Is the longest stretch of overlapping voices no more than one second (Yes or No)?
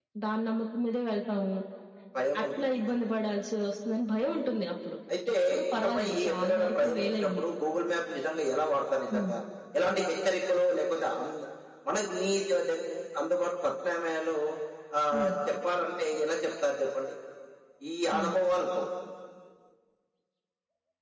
No